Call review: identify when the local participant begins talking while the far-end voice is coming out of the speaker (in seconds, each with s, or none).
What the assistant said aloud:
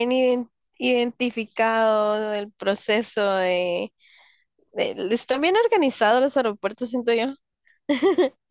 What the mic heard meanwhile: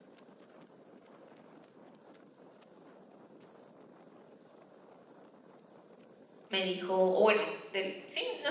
6.5 s